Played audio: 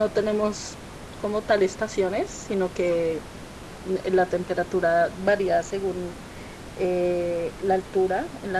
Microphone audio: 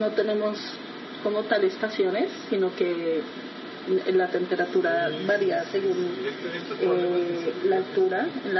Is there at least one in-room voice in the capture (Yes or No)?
Yes